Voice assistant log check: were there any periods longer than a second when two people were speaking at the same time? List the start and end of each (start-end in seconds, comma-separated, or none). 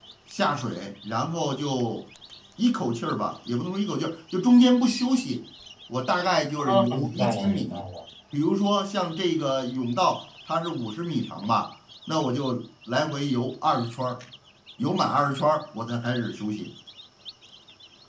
6.6-7.8